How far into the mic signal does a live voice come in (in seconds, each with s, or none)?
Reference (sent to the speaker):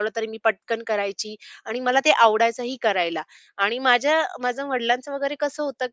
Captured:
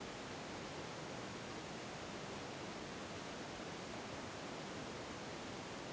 none